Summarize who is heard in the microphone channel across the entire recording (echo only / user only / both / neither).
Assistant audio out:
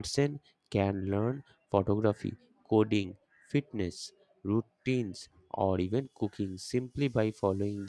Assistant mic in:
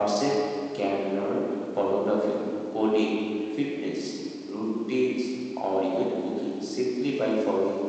echo only